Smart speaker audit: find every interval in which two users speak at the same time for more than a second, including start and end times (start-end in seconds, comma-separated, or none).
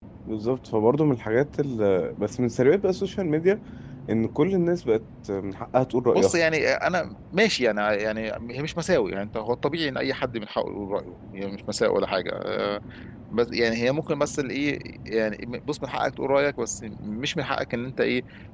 none